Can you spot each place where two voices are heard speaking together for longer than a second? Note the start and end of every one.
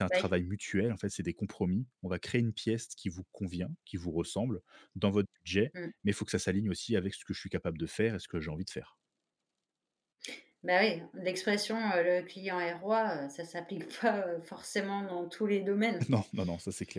none

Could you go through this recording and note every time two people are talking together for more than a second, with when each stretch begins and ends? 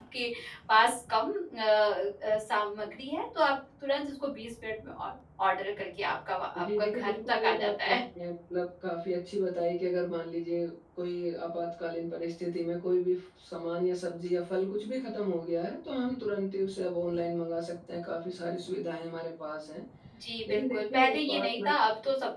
6.6-8.0, 20.4-21.7

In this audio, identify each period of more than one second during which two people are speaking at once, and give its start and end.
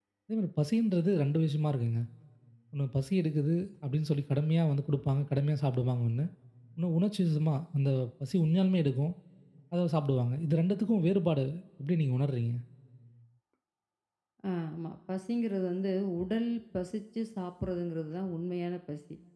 none

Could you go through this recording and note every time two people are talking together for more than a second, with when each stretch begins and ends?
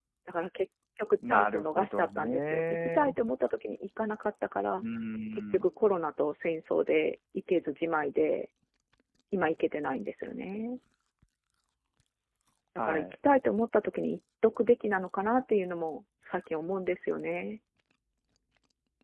1.3-3.1

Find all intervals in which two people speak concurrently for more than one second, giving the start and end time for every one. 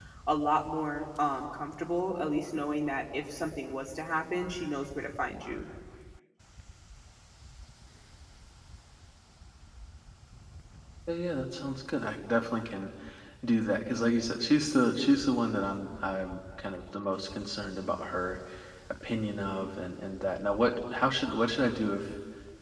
none

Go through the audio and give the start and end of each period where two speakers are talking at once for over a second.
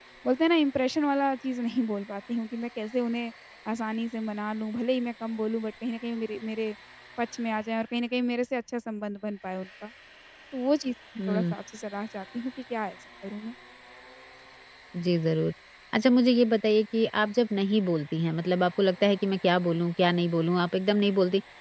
none

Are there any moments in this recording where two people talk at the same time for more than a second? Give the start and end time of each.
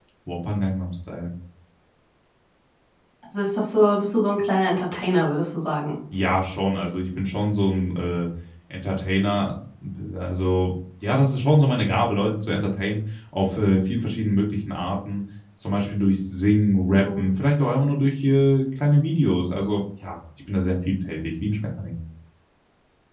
none

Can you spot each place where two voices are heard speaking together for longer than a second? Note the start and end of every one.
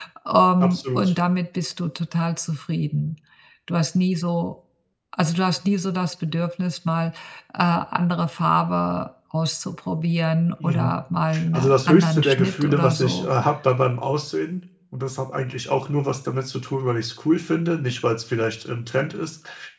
11.5-13.3

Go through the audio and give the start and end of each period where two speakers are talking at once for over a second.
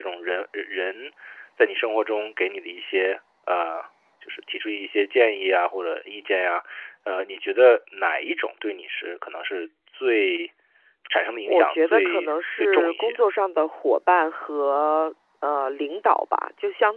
11.5-13.2

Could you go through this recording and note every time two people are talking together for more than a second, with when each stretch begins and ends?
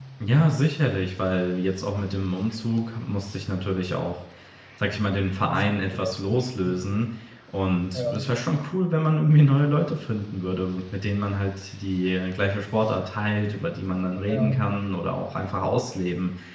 5.4-6.8

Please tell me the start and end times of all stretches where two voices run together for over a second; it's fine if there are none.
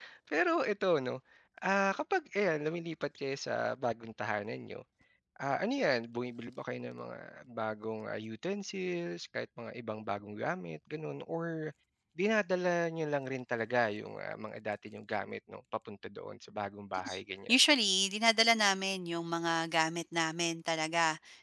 none

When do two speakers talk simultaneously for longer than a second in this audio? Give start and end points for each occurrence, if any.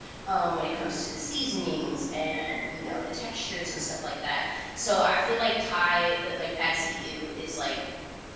none

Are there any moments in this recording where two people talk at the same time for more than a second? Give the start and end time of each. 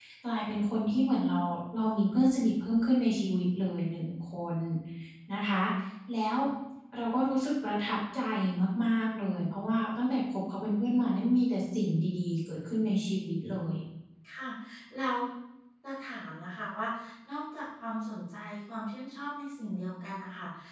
none

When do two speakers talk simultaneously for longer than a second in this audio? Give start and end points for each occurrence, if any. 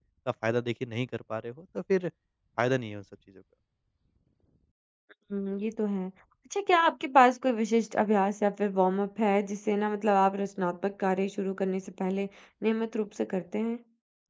none

